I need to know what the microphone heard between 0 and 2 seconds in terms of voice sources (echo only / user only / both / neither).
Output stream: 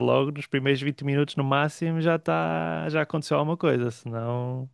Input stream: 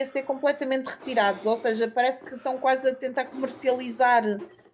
user only